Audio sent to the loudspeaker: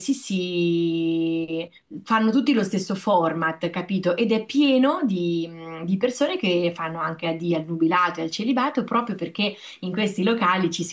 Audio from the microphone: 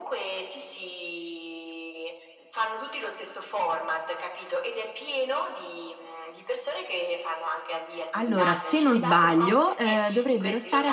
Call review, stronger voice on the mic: user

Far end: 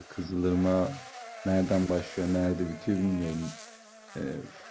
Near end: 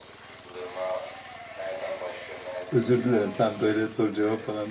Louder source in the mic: user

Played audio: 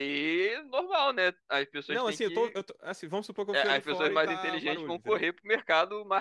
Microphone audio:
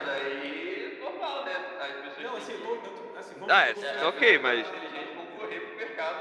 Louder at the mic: user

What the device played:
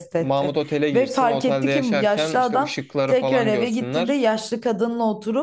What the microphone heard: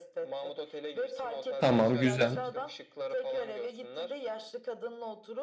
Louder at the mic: user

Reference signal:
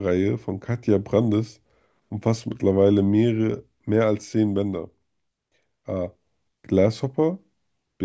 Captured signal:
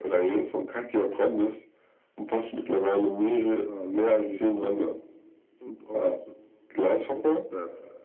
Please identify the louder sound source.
echo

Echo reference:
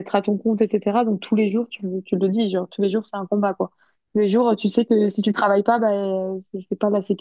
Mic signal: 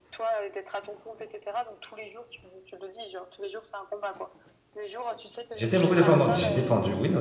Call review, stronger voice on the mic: user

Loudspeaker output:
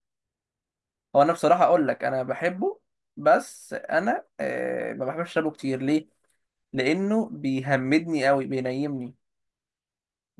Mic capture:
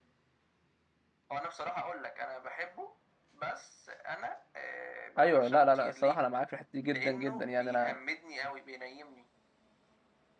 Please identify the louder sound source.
user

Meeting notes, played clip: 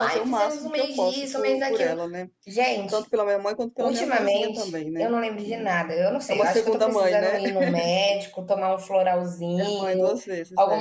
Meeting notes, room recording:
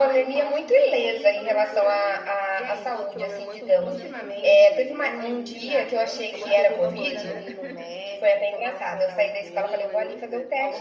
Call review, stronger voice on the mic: user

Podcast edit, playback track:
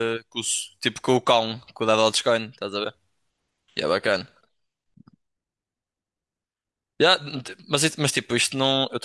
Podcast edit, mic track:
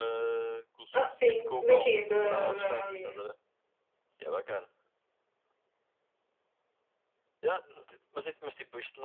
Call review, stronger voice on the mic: user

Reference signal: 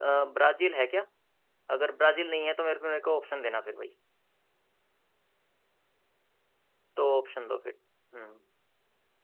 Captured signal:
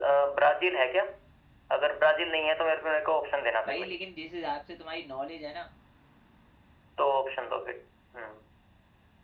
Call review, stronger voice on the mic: echo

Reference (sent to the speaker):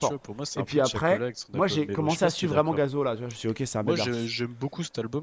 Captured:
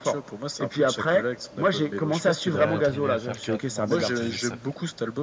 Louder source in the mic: echo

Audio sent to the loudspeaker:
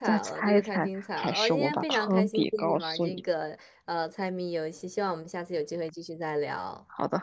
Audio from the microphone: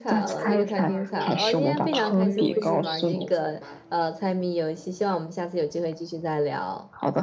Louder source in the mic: echo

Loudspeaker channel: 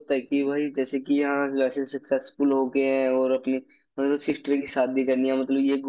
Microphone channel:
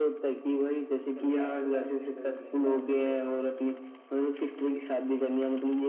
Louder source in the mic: echo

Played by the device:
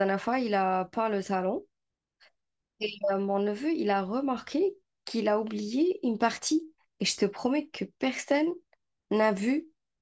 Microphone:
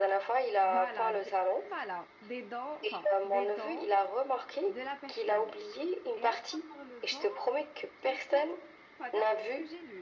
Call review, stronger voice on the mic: echo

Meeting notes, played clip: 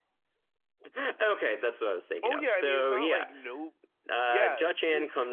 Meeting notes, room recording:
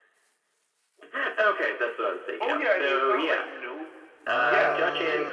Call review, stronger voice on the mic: echo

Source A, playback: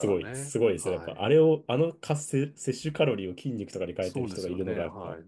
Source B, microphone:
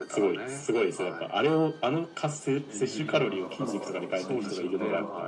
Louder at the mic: echo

